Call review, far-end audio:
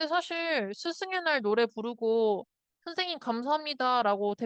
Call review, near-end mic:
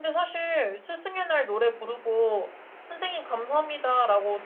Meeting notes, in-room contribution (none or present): none